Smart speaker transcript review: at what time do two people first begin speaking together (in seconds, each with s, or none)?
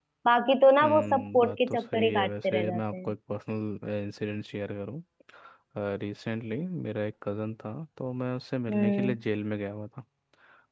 0.8 s